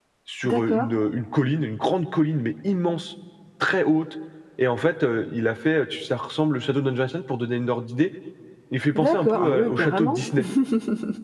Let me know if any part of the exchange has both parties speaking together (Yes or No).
Yes